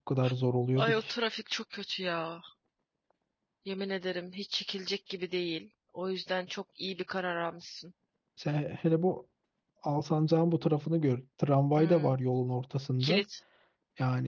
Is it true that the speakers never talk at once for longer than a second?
Yes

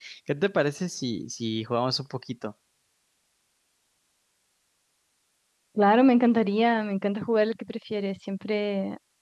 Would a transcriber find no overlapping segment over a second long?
Yes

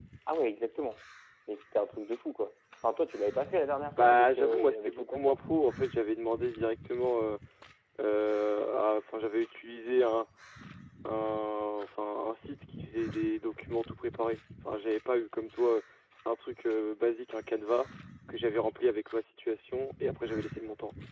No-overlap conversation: No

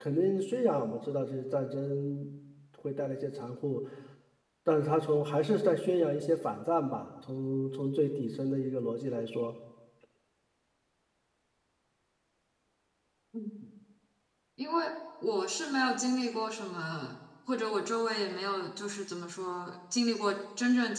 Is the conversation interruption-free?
Yes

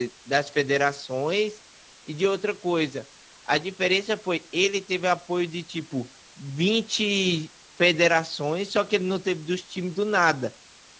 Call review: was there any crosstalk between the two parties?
No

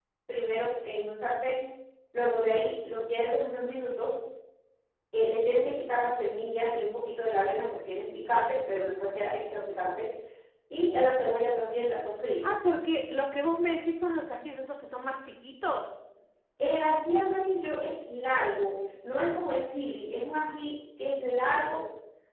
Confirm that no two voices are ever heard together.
Yes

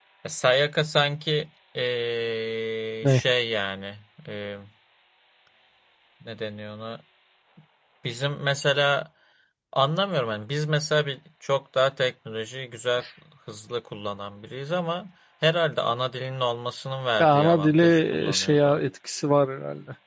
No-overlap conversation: No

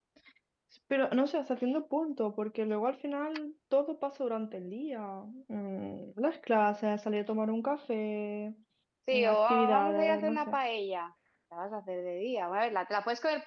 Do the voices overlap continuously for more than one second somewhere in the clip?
Yes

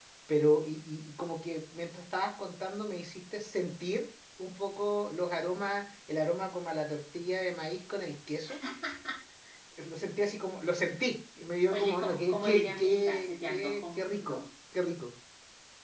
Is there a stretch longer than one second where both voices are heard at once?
Yes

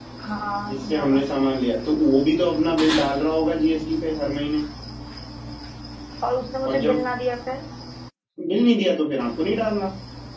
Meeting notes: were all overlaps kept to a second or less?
Yes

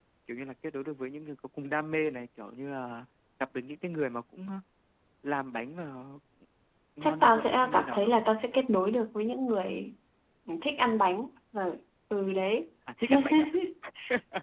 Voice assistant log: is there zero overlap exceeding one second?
No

